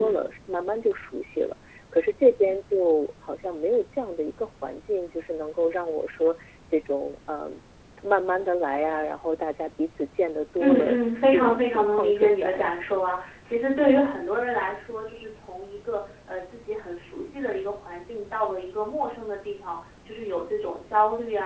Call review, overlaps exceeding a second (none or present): present